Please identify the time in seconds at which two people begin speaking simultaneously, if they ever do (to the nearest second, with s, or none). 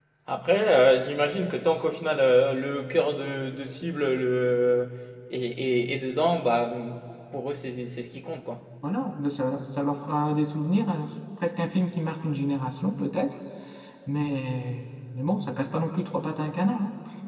none